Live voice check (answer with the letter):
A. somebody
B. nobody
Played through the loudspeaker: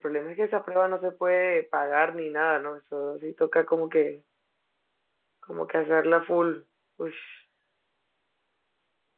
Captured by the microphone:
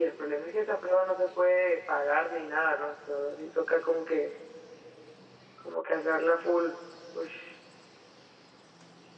B